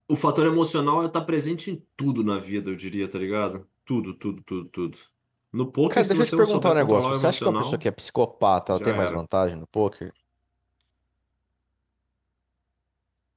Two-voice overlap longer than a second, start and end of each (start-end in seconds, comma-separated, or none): 5.9-7.8